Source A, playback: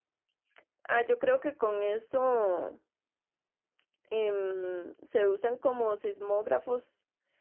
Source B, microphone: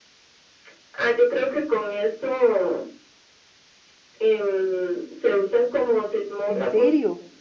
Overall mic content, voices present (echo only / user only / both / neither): both